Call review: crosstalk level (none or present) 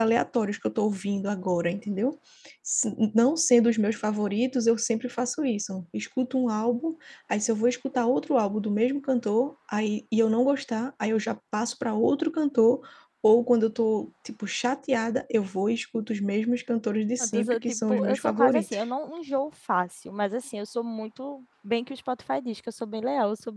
present